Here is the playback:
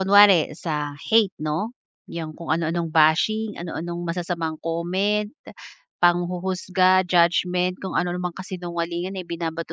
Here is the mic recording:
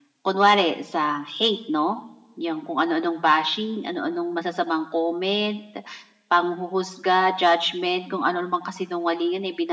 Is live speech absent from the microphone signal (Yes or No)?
Yes